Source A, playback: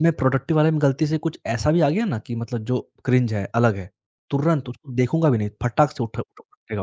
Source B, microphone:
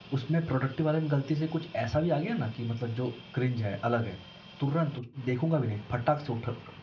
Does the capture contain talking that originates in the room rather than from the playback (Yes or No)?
No